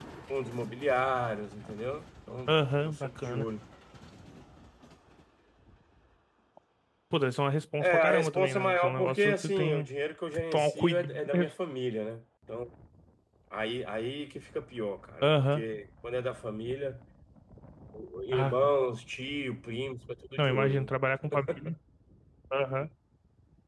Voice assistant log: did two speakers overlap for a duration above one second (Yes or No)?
Yes